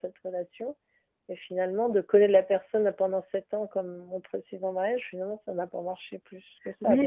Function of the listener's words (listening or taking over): taking over